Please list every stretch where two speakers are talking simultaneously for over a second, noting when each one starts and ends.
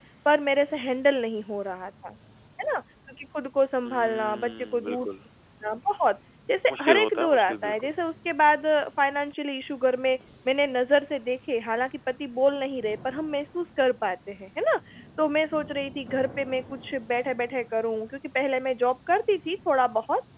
3.9-5.1, 6.7-7.9

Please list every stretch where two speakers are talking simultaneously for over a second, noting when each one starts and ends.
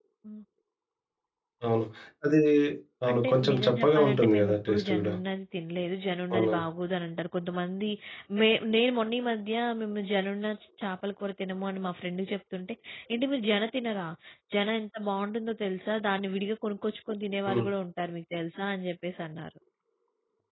3.1-5.1

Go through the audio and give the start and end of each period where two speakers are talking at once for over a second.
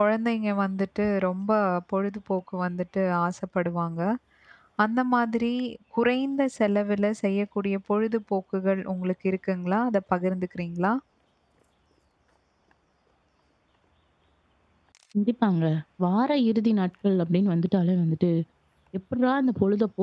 none

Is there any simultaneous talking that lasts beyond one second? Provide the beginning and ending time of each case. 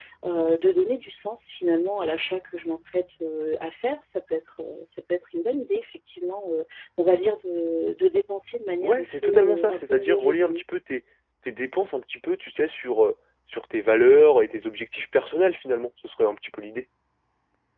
8.8-10.6

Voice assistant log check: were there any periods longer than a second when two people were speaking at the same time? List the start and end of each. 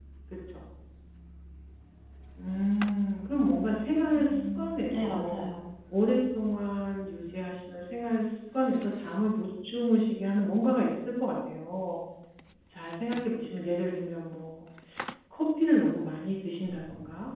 4.1-5.5

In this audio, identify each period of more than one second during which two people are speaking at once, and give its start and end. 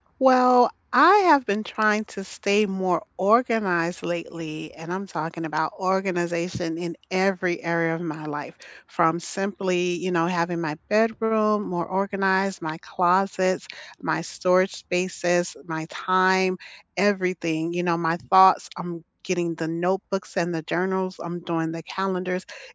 none

